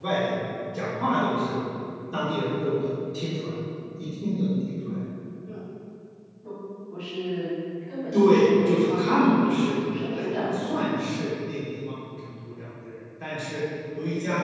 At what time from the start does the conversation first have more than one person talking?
8.1 s

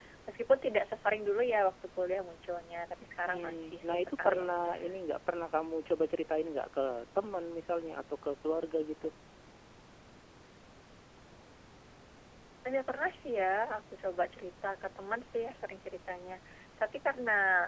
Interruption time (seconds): 3.3 s

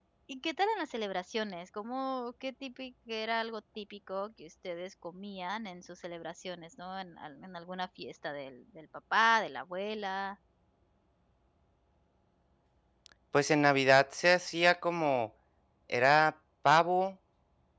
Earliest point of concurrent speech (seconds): none

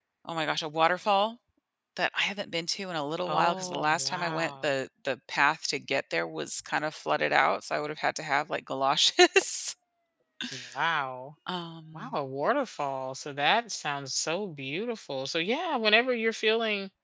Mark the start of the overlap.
3.3 s

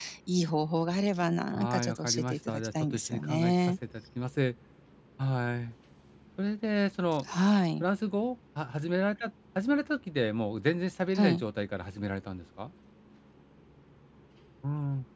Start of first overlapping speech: 1.6 s

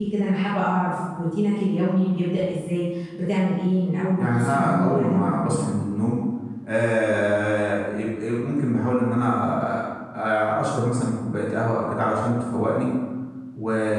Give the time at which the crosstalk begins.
4.2 s

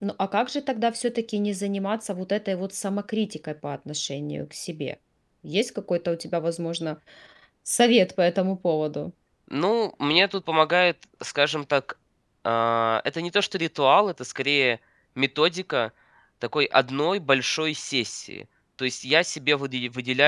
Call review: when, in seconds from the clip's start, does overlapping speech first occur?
none

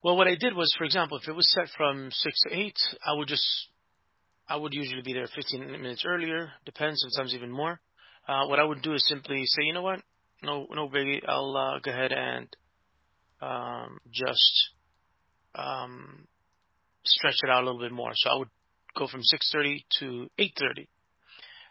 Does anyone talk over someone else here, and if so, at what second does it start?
none

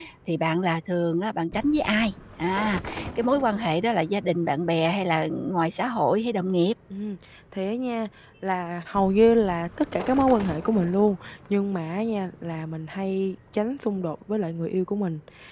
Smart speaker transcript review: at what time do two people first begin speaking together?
none

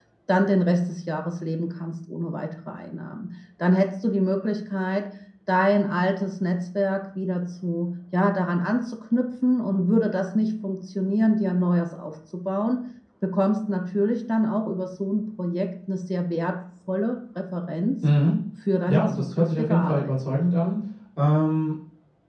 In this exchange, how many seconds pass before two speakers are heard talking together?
18.9 s

